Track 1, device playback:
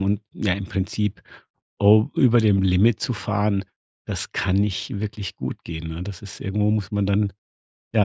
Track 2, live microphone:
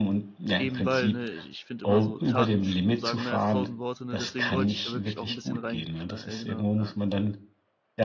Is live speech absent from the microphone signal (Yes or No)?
No